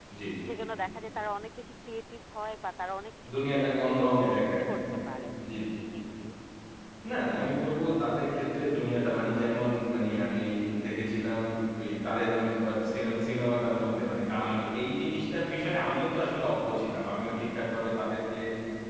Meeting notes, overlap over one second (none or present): present